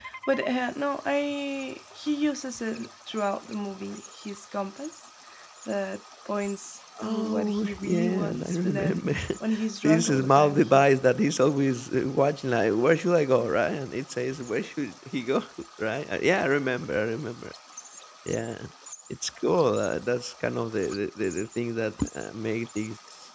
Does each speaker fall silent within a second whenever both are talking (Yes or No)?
No